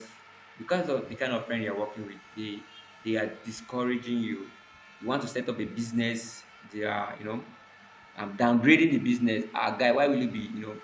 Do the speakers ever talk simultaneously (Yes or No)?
No